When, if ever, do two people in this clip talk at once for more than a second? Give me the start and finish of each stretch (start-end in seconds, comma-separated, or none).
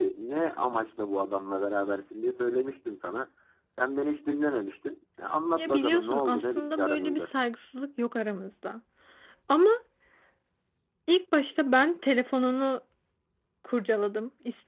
5.5-7.3